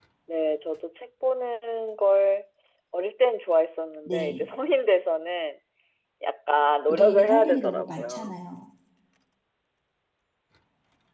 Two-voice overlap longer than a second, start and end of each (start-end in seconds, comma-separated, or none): 6.9-8.4